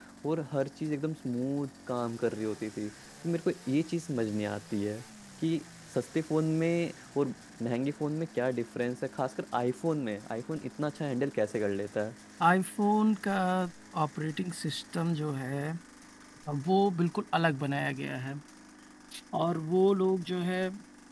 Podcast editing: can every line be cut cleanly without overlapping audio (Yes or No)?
Yes